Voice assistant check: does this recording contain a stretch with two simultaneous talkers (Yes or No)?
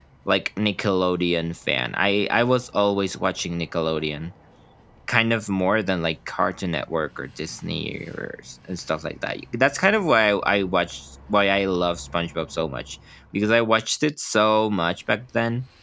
No